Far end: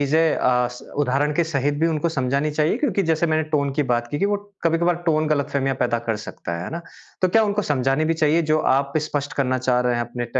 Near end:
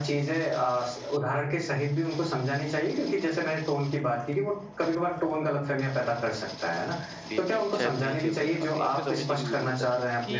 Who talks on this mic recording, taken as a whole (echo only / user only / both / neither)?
both